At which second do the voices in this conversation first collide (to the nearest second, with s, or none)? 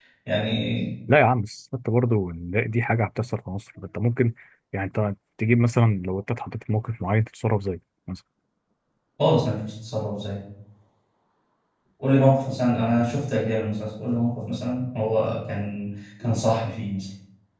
none